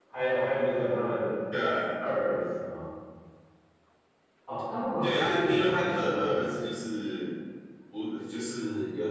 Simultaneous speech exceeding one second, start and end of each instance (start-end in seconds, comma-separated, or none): 5.0-6.5